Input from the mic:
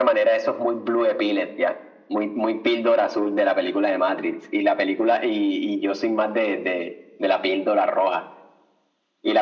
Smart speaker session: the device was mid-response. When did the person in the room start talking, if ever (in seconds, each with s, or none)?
none